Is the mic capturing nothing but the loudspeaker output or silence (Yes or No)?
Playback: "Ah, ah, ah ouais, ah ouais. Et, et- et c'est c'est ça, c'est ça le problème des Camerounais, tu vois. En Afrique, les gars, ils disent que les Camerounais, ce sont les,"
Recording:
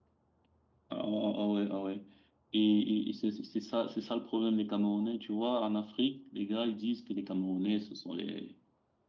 Yes